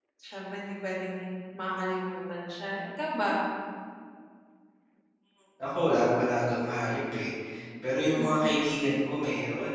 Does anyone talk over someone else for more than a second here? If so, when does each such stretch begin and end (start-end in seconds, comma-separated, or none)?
none